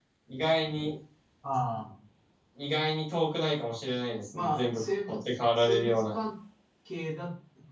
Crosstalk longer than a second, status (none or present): present